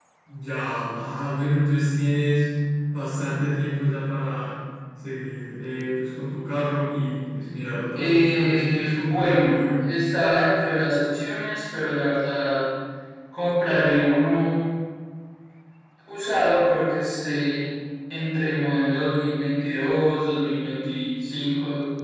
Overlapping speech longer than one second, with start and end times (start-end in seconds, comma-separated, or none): 8.0-9.7